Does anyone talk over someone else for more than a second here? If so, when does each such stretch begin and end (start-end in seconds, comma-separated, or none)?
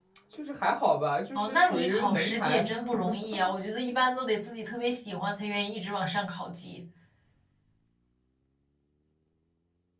1.3-2.6